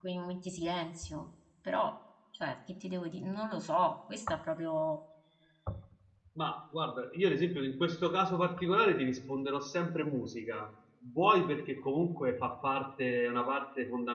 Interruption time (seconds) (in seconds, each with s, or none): none